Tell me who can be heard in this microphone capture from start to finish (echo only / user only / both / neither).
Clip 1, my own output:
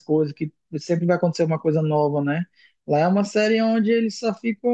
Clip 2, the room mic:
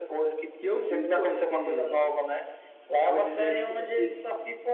both